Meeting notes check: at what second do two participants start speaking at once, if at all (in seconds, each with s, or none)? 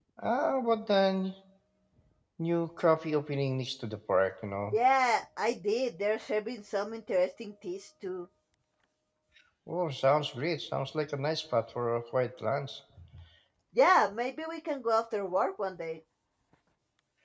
none